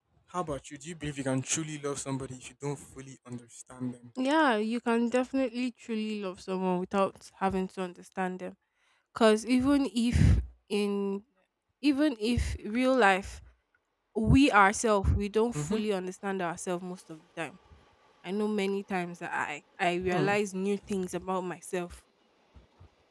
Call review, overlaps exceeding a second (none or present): none